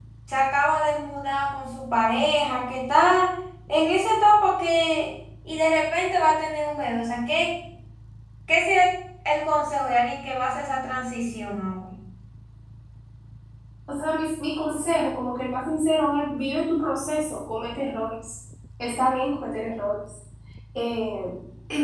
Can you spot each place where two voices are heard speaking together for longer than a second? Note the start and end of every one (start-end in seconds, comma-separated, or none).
none